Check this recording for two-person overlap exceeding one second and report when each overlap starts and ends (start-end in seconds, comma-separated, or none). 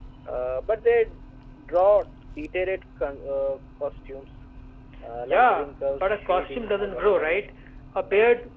5.2-7.3